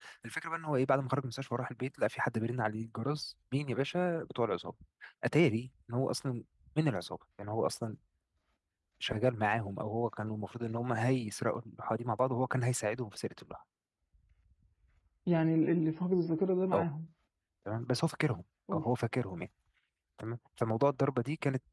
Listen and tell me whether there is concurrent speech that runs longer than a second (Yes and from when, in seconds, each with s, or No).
No